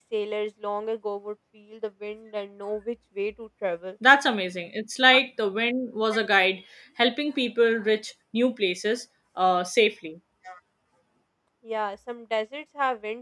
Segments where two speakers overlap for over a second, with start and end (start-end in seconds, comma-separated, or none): none